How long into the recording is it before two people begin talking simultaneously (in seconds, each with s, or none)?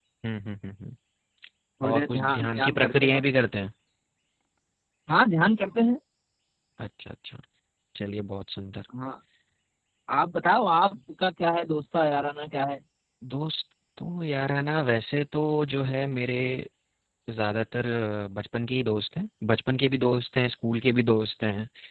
1.9 s